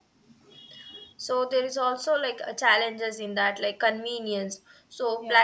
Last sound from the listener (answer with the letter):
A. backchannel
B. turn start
A